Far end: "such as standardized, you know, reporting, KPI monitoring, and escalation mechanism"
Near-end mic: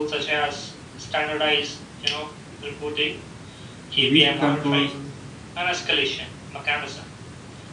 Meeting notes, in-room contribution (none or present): present